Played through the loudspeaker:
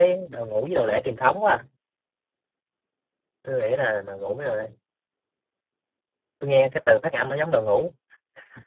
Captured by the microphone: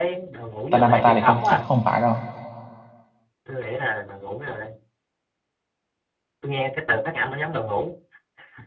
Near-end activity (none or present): present